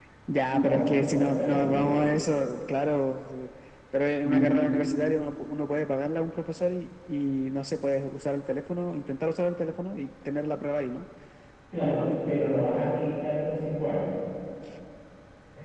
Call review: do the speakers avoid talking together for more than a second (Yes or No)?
No